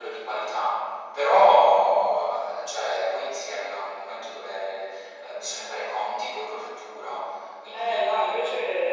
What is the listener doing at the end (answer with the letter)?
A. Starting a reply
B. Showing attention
A